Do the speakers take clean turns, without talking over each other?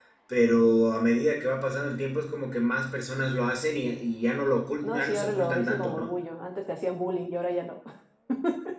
No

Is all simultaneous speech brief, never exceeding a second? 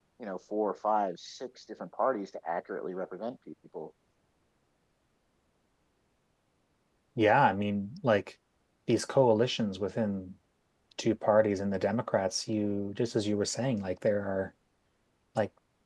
Yes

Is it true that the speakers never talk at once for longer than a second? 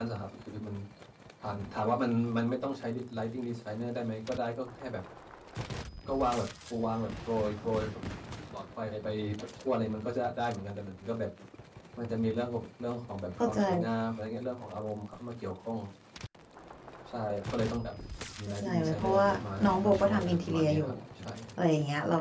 No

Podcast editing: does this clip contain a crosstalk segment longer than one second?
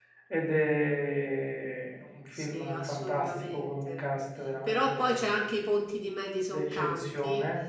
Yes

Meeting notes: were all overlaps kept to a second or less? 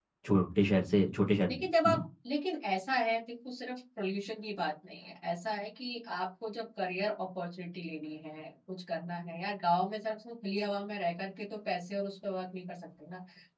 Yes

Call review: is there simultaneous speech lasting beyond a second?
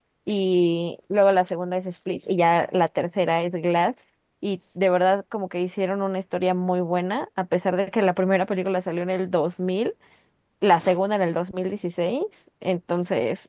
No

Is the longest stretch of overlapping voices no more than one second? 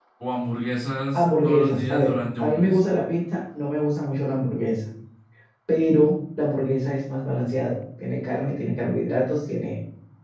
No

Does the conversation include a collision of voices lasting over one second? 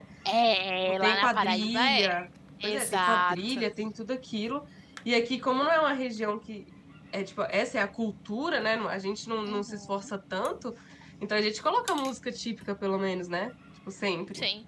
Yes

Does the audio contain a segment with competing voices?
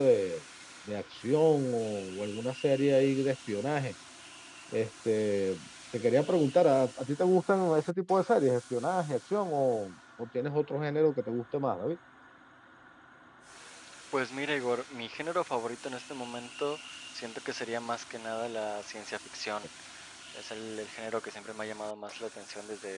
No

